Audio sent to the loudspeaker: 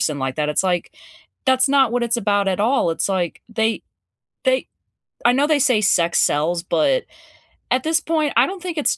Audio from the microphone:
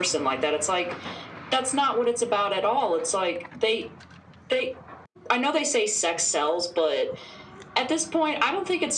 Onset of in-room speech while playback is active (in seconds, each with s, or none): none